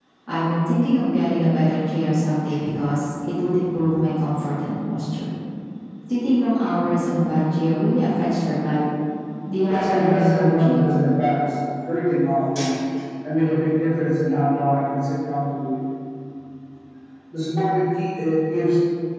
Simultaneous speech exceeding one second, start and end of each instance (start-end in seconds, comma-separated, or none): 9.7-10.9